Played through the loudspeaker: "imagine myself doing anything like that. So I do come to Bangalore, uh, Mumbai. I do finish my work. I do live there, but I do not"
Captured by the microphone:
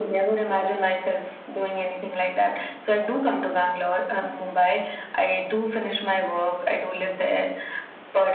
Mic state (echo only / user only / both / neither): echo only